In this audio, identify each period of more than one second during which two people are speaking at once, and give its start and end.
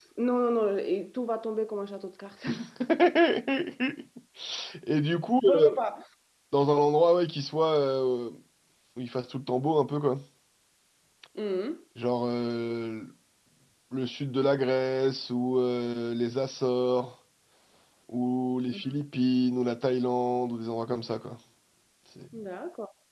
none

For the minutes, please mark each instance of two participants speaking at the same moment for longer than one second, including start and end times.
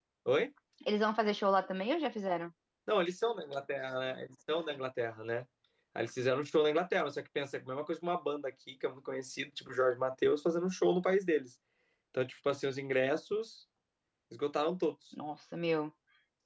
none

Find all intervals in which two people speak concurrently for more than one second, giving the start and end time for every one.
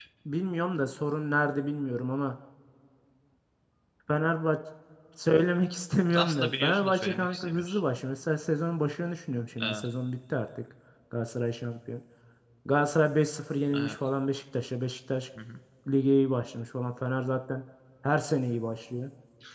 6.1-7.8

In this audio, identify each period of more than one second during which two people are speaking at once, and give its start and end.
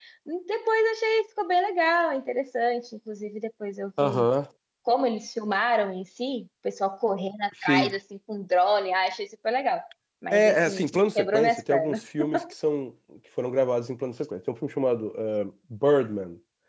10.3-12.0

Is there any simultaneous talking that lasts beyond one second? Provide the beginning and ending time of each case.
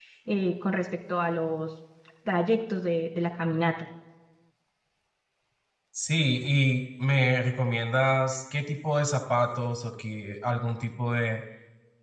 none

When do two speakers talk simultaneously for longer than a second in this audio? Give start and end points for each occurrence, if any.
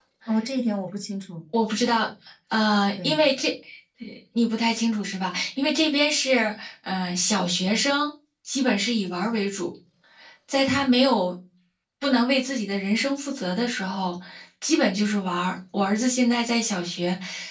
none

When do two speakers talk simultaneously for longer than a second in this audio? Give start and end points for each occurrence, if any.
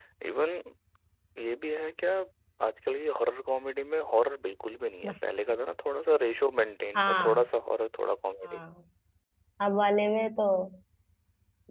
none

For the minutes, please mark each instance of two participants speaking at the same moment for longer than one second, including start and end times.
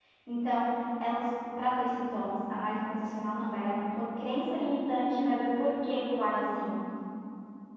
none

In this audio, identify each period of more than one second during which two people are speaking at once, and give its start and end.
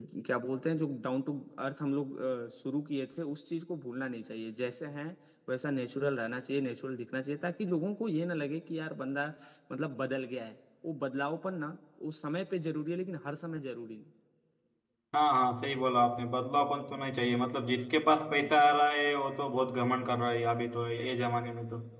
none

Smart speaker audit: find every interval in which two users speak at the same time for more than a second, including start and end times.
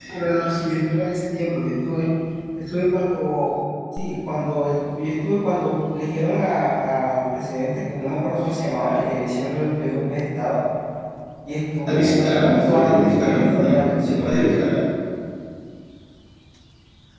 11.9-14.3

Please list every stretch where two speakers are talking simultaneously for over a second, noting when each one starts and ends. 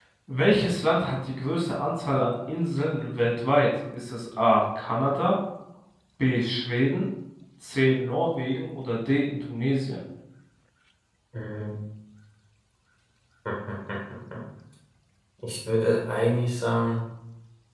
none

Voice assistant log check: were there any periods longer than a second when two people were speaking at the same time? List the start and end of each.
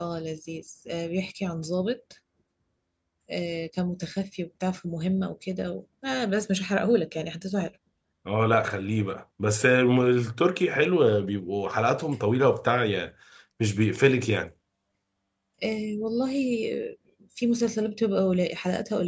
none

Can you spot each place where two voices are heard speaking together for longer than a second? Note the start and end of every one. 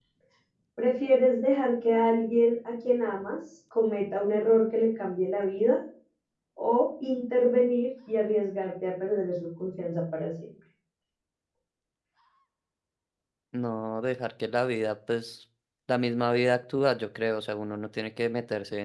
none

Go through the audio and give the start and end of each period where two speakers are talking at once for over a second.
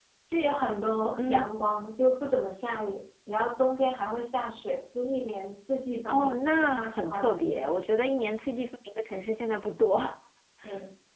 6.1-7.7

